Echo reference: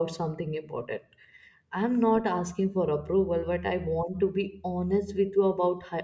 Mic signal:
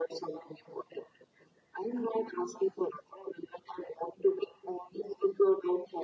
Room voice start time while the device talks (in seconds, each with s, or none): none